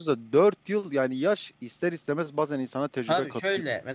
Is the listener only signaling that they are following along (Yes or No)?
No